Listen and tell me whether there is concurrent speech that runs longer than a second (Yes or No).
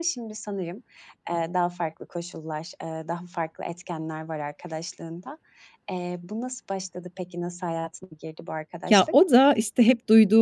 No